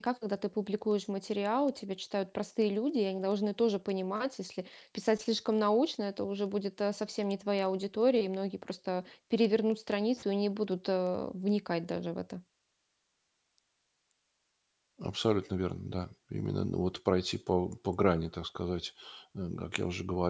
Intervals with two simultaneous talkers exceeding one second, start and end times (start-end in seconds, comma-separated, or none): none